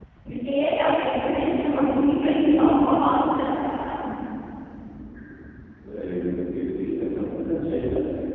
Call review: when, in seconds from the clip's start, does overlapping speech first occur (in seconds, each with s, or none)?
none